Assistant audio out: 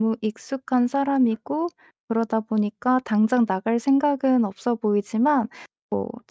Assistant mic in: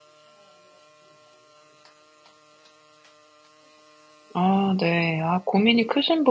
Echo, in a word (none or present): none